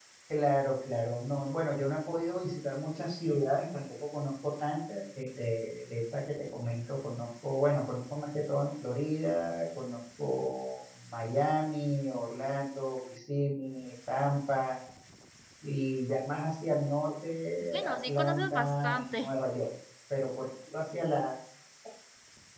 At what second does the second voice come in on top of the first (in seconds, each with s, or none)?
17.7 s